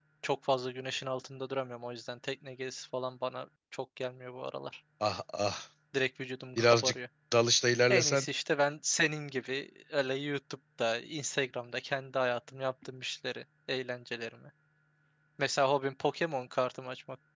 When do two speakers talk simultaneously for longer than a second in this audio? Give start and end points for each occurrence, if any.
none

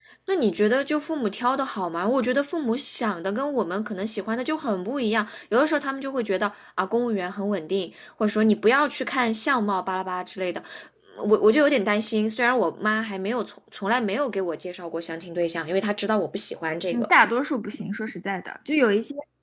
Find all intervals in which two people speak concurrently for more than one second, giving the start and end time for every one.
none

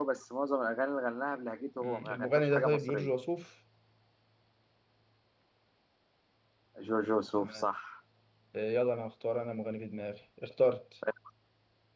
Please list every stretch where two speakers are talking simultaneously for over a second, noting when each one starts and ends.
1.8-3.1

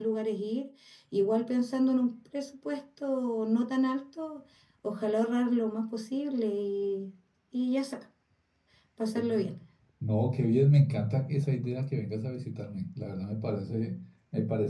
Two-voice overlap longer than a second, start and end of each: none

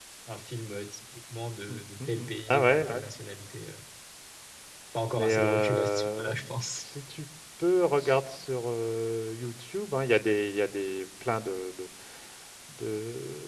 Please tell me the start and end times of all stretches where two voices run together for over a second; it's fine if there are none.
1.7-3.0, 5.1-6.9

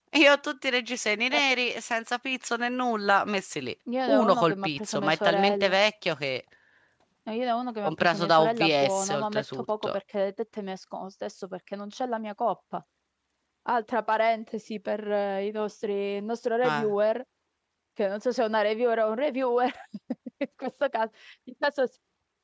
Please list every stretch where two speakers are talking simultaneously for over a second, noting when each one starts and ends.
4.1-5.8, 7.8-9.9

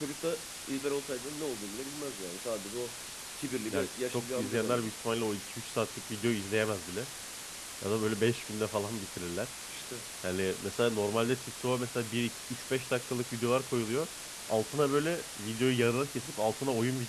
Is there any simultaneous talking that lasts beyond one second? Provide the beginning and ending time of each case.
3.7-4.9

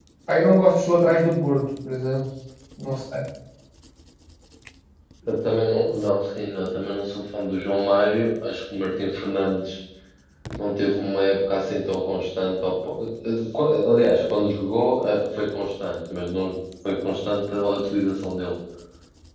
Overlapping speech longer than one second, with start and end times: none

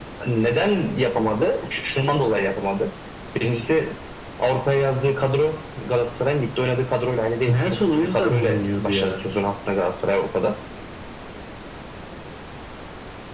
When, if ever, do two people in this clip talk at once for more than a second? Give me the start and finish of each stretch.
7.5-9.3

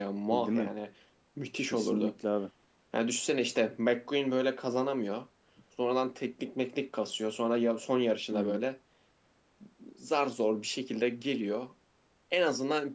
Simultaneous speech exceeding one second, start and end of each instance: none

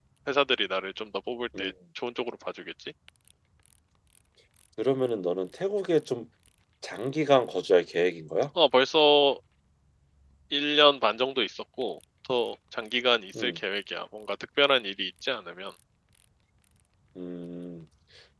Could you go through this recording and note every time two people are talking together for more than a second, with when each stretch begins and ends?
none

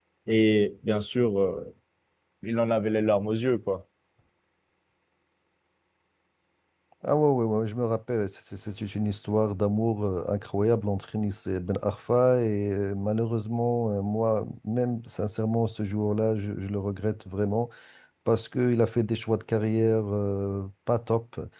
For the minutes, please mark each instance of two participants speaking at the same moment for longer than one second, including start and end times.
none

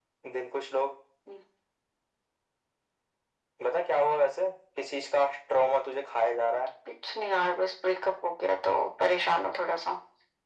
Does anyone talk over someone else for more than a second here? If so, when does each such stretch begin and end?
none

